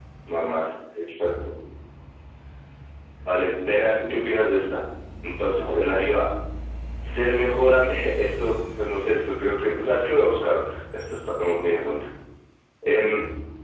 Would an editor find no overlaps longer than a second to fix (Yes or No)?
Yes